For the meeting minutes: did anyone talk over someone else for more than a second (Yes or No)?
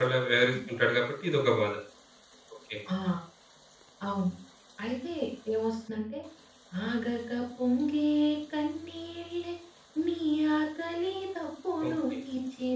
No